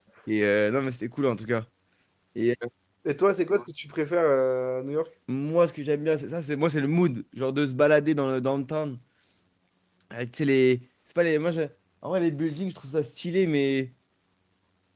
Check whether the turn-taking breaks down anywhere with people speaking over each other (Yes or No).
No